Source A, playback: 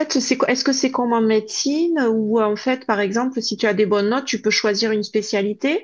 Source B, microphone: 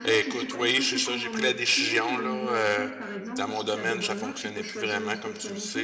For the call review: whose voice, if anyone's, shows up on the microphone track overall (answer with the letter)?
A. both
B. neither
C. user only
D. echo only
A